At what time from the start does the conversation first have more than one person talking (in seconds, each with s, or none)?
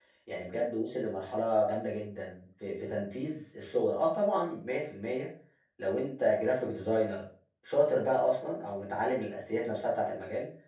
none